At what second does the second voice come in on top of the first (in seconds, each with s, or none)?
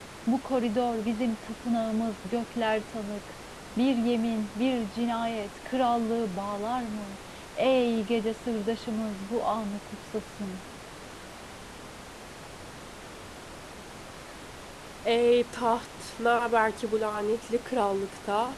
none